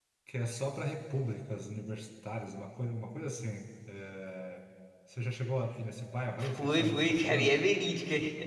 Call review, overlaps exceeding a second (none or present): present